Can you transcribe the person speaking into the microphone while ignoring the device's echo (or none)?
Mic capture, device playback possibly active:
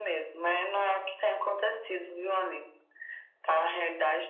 none